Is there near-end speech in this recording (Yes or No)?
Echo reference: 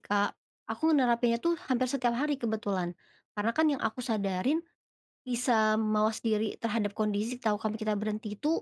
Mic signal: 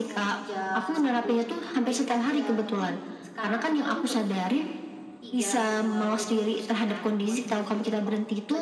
Yes